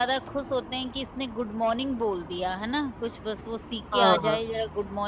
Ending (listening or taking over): listening